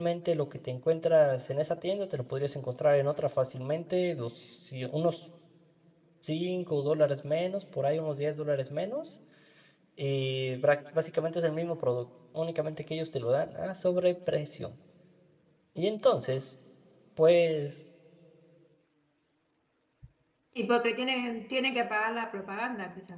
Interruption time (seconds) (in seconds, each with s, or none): none